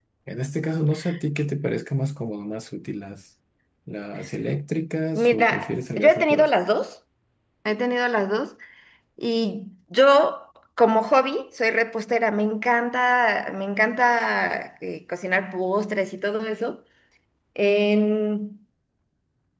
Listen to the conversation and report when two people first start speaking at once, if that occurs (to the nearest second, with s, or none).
5 s